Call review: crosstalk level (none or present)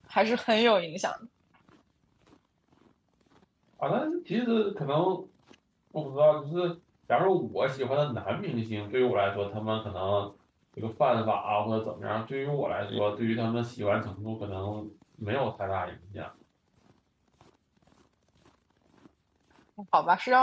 none